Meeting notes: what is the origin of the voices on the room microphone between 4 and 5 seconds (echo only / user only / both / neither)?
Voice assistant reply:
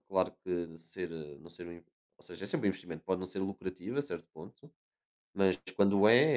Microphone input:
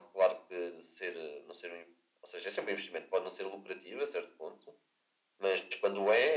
echo only